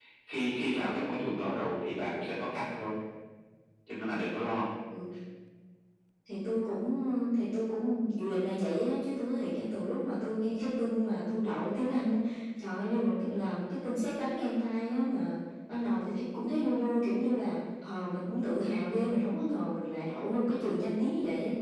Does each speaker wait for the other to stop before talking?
Yes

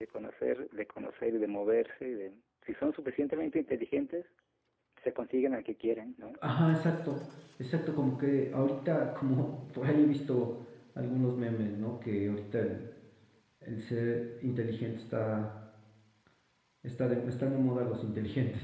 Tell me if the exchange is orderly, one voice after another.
Yes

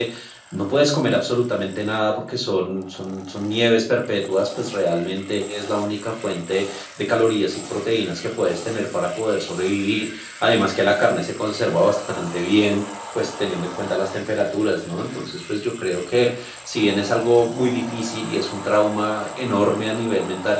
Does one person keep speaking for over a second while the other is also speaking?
No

